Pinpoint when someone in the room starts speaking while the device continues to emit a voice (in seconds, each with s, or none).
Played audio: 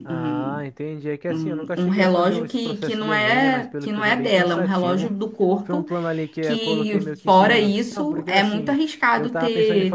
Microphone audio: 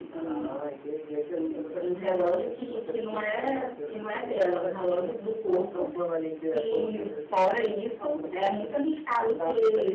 none